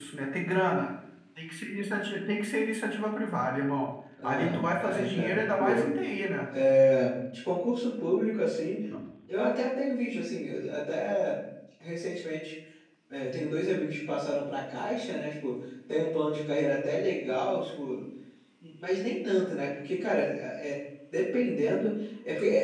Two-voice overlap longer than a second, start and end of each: 4.2-5.9

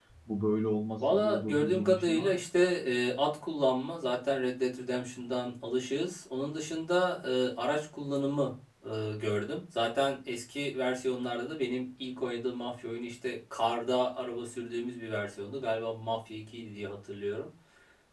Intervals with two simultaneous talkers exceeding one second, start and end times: 1.1-2.4

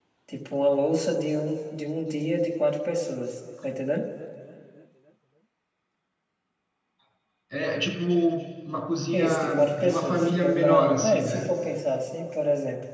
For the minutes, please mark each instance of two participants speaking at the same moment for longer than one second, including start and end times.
9.1-11.6

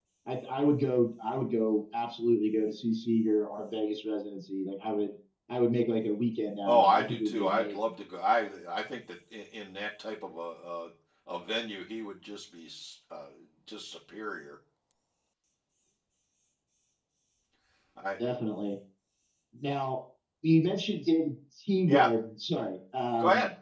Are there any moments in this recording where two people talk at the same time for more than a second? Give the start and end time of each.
6.6-7.9

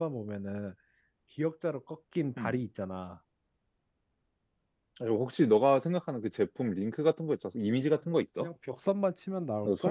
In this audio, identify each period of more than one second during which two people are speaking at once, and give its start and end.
none

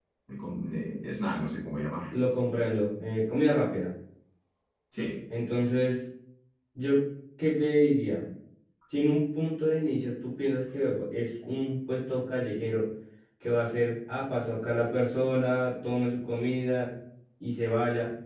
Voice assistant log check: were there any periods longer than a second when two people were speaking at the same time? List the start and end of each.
none

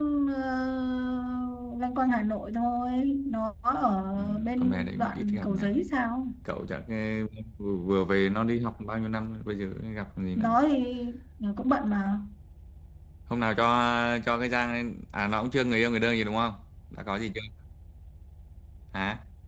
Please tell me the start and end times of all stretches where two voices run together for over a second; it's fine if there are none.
4.2-5.6

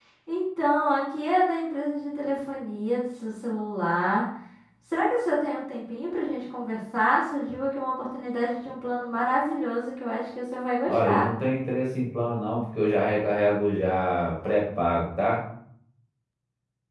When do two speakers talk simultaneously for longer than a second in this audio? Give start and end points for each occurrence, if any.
none

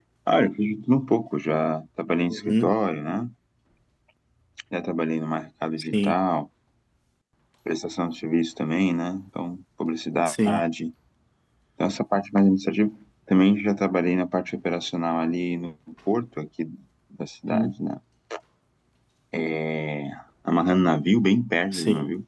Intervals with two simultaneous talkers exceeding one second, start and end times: none

